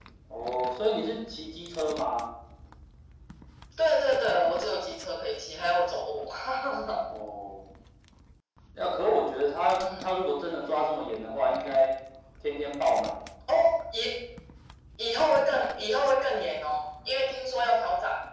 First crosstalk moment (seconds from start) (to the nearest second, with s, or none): none